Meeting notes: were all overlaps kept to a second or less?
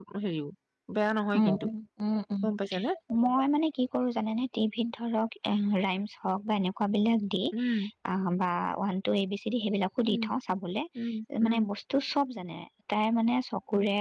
Yes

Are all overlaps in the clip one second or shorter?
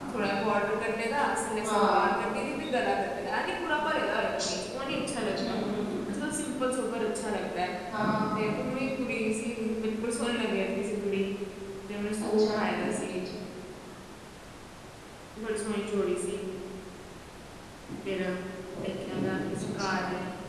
Yes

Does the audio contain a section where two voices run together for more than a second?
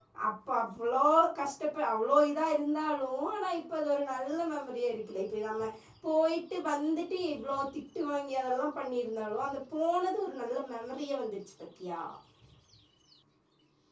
No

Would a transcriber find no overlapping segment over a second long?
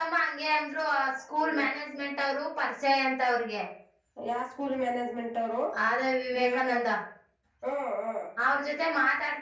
Yes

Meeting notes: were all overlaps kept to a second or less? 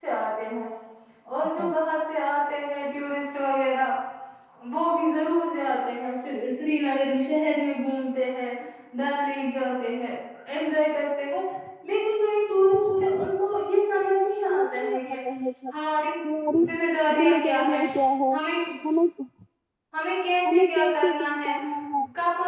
No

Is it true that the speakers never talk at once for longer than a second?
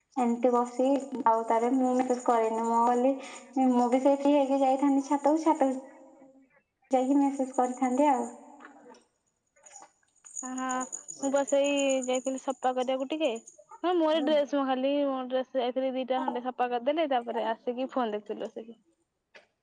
Yes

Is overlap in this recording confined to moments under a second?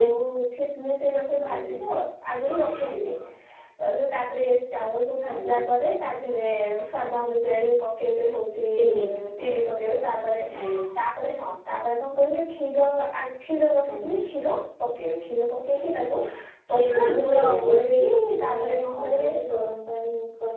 No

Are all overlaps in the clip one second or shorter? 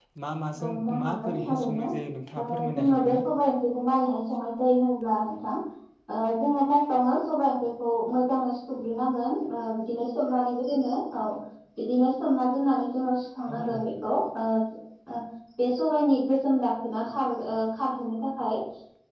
No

